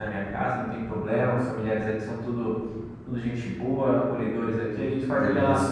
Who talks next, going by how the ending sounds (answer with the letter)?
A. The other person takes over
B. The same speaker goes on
B